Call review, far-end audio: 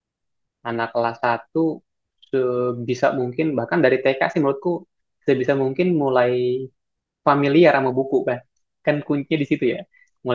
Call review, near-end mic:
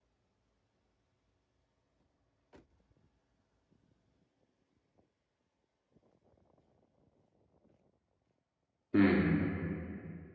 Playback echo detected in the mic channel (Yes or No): No